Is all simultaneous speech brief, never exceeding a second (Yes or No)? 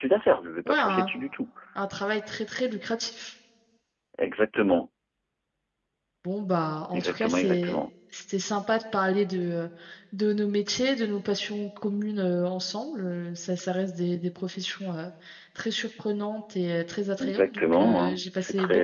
No